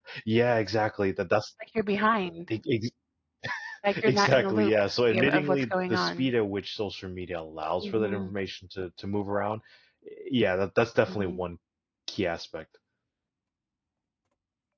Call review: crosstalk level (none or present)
present